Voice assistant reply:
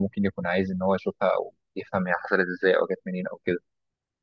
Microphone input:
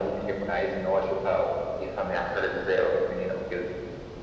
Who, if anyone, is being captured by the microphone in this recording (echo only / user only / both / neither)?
echo only